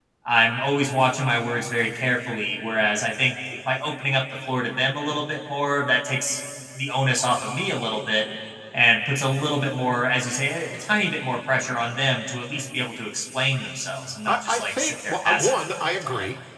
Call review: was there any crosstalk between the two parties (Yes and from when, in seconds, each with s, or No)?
Yes, from 14.2 s